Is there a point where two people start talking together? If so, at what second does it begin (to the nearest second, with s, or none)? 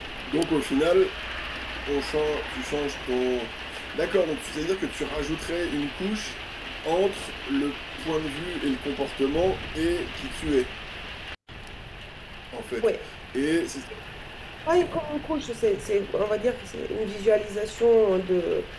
none